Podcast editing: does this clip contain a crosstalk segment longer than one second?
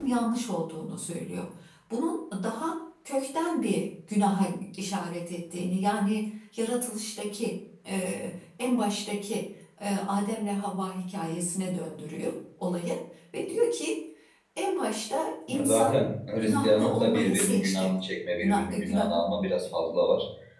Yes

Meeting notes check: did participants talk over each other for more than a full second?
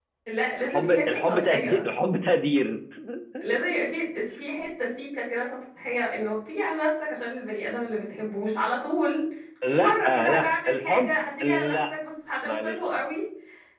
Yes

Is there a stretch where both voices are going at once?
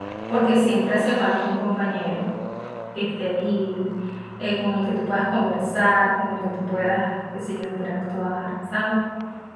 No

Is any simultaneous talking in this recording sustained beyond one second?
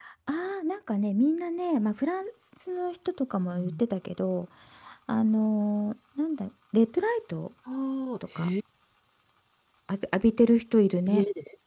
No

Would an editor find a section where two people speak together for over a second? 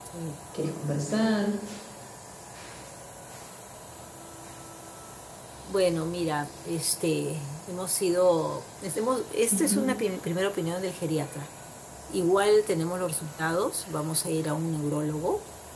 No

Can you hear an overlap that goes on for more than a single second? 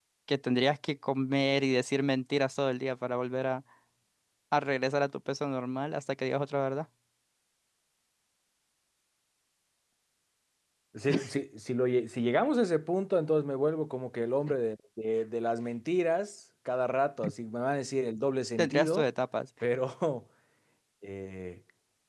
No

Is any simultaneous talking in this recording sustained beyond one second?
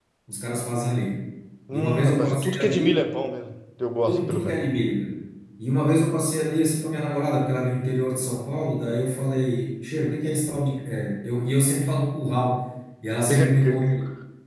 Yes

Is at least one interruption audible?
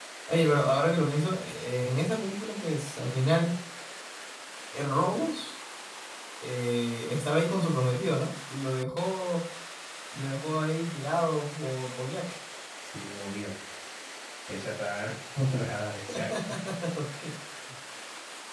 No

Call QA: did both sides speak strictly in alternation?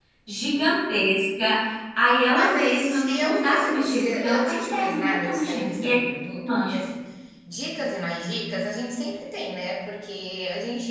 No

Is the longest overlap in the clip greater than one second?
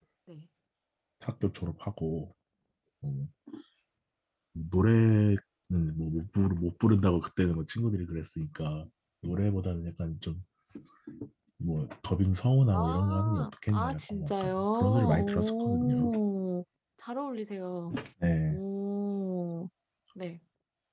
Yes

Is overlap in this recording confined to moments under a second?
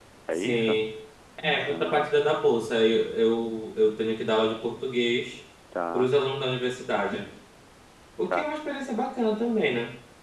Yes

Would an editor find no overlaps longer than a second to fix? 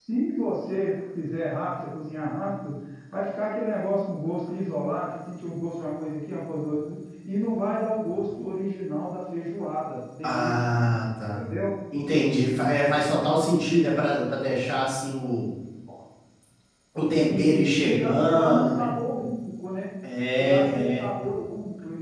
No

